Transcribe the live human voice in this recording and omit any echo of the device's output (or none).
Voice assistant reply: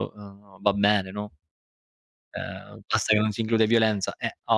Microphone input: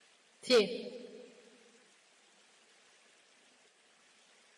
Sì.